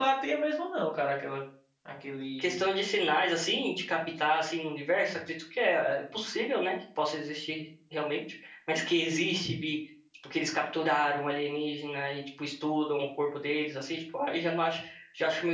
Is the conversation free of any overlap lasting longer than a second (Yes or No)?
Yes